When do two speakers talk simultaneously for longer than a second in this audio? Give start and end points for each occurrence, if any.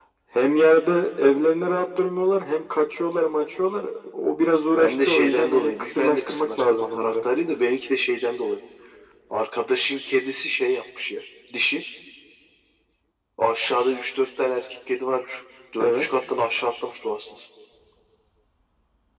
4.8-7.2

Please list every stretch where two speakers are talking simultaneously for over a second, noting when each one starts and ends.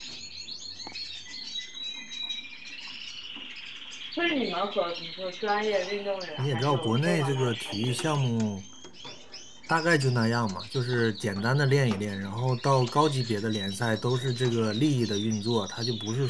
6.4-8.0

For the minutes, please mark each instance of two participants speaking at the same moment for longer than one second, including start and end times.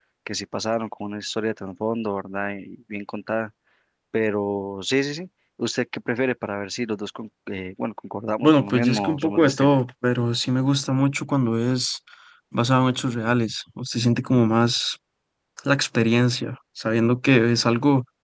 8.4-9.7

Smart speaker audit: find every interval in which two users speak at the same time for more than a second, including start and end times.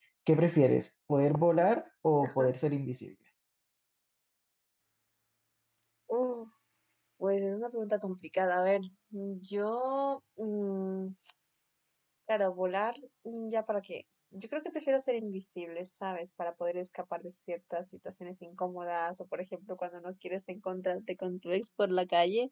none

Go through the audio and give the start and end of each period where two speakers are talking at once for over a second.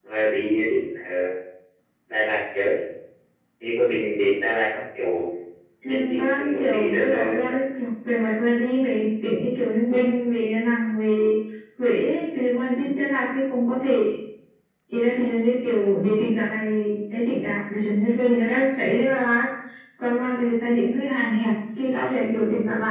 5.8-7.5

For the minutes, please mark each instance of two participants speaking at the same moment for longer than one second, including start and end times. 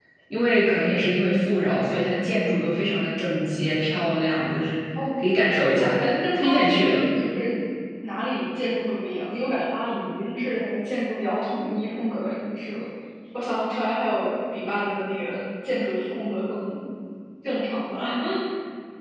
5.8-7.0

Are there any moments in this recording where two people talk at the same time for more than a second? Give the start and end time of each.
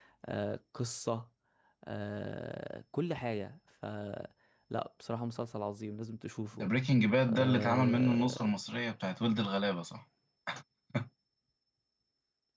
7.3-8.5

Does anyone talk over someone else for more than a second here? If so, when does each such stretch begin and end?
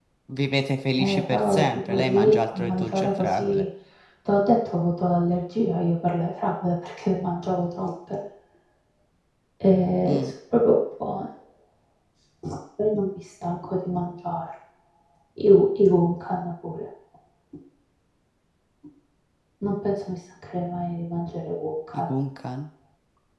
1.0-3.6

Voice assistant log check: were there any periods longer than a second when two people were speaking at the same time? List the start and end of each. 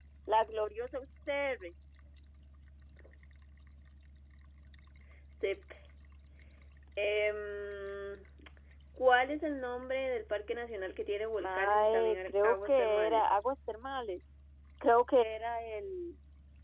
11.4-13.2

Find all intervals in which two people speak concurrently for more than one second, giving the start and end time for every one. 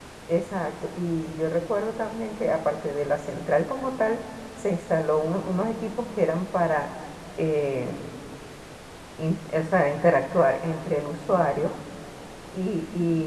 none

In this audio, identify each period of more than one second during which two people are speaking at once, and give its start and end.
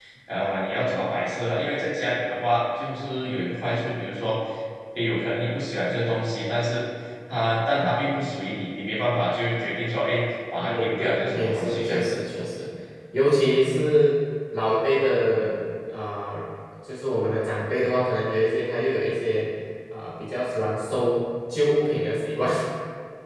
10.6-12.2

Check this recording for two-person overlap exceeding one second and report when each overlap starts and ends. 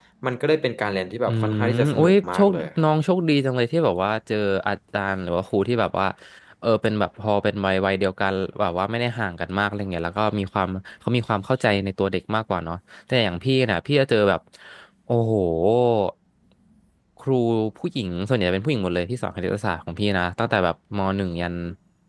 1.3-2.7

